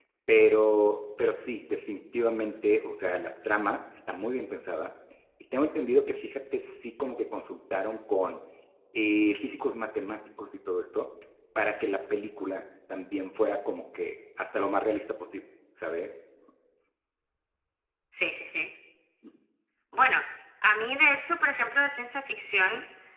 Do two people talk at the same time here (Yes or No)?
No